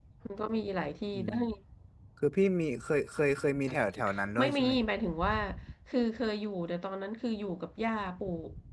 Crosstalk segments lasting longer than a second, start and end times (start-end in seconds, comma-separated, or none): none